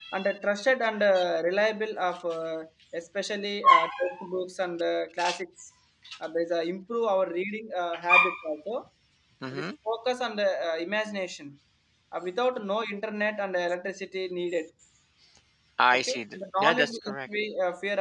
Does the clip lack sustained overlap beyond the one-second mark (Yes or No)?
No